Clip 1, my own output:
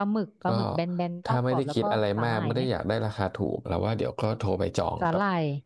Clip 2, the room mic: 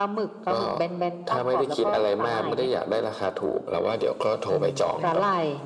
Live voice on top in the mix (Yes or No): No